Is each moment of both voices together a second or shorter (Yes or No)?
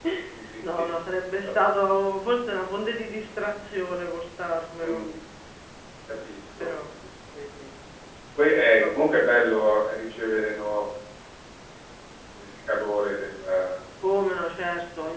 Yes